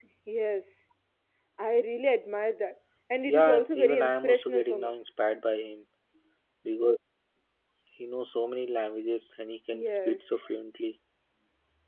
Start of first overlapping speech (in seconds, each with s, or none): 3.2 s